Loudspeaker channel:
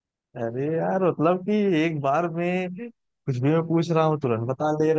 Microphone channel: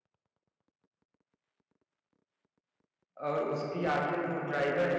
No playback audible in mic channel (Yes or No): Yes